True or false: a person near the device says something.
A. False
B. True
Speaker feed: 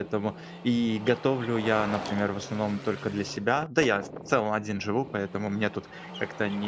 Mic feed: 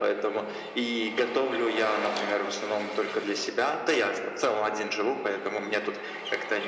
A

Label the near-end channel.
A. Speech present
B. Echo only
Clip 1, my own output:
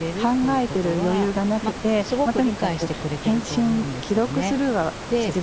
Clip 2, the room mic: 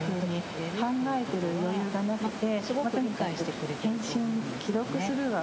B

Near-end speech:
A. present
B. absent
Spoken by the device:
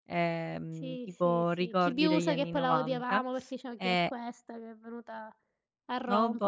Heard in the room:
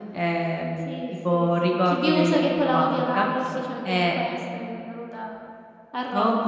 B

